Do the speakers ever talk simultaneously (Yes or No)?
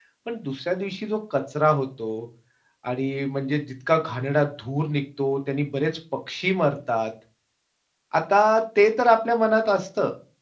No